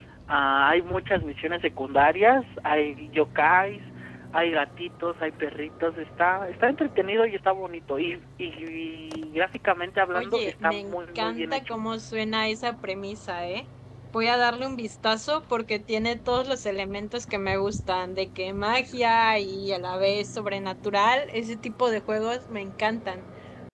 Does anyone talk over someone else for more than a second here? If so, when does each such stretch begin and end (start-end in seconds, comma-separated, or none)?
10.1-11.8